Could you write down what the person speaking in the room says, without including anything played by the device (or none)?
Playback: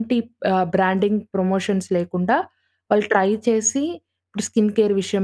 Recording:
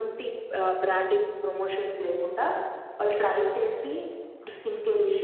none